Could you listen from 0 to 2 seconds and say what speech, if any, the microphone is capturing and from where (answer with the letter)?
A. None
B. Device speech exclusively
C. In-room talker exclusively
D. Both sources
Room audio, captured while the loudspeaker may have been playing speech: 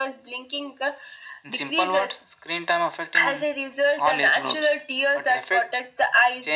B